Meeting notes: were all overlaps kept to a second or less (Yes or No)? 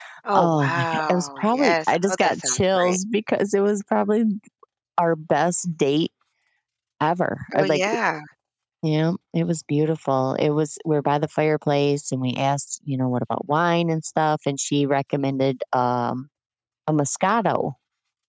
No